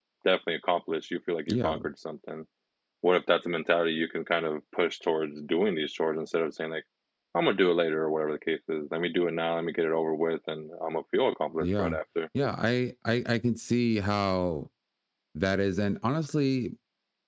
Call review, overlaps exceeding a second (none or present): none